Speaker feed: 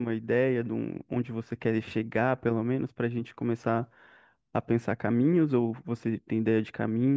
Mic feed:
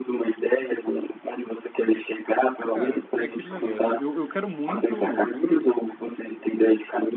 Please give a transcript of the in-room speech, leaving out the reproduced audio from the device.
Cara, é aquele negócio. Eu, eu quero muito

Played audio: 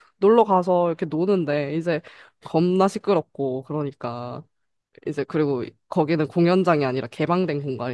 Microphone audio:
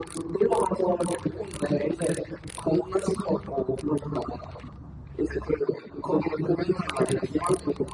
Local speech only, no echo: none

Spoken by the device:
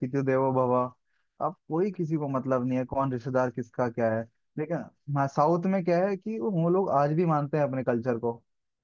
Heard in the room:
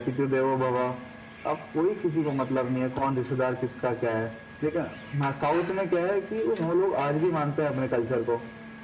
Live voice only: none

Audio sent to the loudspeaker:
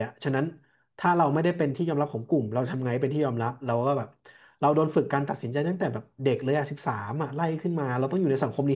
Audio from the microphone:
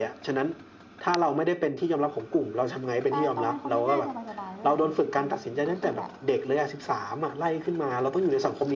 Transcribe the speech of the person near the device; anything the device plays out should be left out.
ใช่ต้องเป็นคนง่ายๆสบายๆด้วยแหละ easy going ก็คือแบบ

